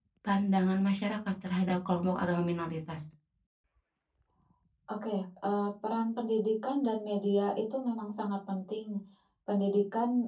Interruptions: none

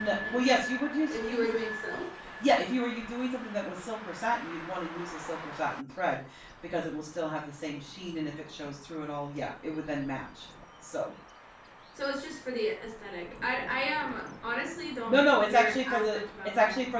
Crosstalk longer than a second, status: present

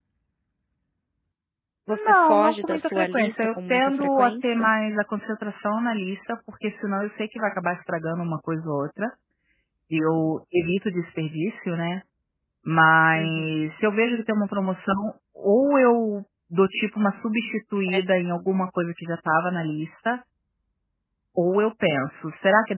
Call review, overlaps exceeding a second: present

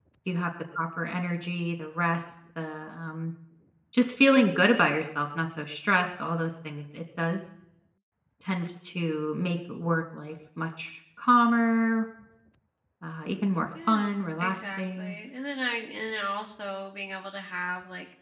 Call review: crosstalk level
present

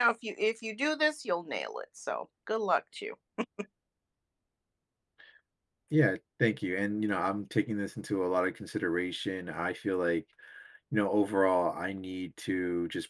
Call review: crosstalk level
none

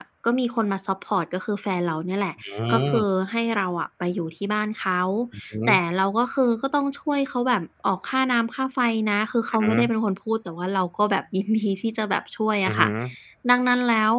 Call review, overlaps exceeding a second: none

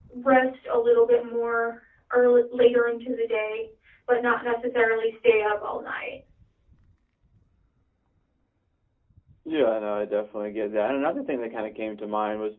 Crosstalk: none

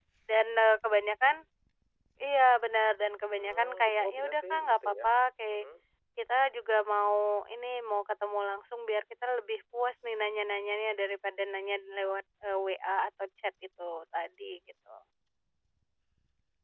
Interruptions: present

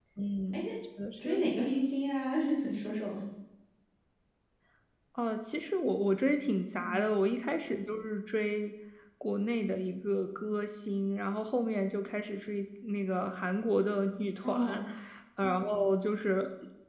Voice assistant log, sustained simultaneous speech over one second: none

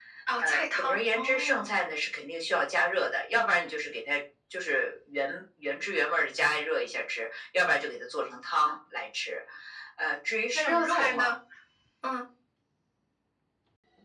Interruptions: present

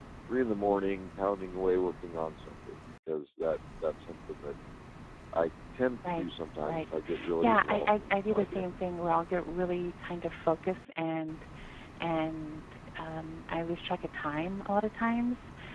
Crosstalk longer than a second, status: present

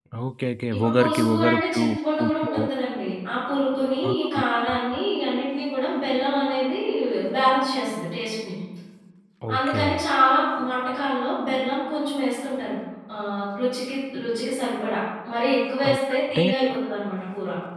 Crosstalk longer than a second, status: present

